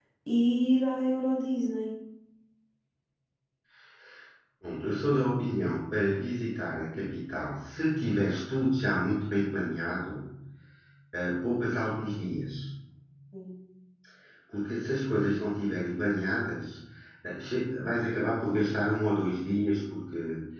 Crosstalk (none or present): none